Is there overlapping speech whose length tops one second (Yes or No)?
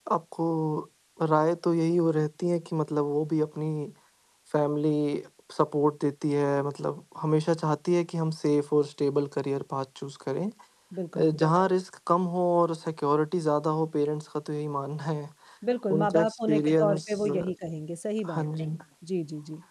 Yes